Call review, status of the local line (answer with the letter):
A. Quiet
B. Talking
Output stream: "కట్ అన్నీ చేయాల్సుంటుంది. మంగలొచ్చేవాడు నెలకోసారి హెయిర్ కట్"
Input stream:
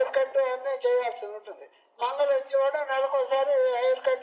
A